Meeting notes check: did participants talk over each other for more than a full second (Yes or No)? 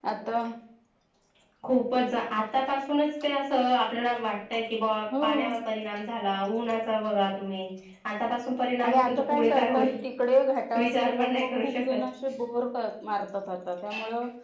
Yes